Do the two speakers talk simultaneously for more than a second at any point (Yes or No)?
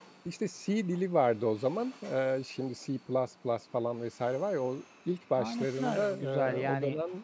Yes